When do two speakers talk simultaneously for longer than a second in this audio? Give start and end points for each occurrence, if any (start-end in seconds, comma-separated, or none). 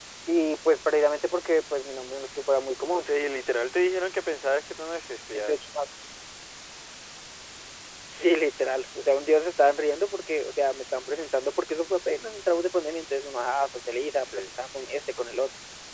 none